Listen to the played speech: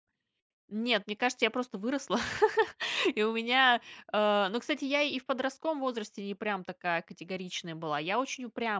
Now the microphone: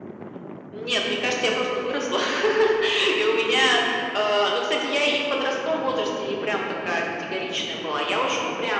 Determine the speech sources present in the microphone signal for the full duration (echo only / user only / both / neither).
echo only